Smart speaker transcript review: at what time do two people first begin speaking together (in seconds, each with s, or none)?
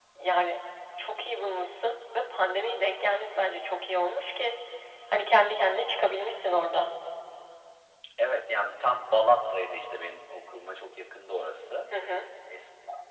none